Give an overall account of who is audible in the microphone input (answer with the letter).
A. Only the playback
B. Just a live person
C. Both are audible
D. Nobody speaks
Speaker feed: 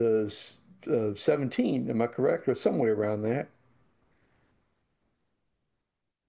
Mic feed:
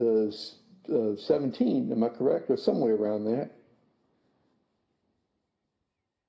A